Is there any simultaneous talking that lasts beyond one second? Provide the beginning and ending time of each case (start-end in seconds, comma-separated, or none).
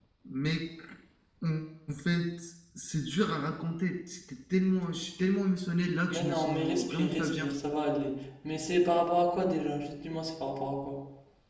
6.1-7.5